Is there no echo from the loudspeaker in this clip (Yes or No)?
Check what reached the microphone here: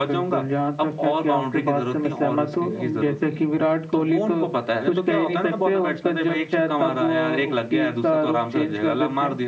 No